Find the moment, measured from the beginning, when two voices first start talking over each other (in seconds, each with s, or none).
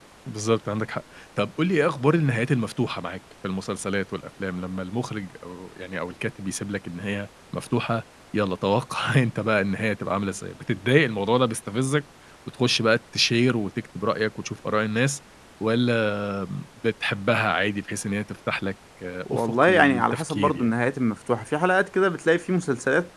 19.3 s